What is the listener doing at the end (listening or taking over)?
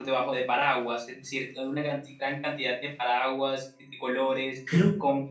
listening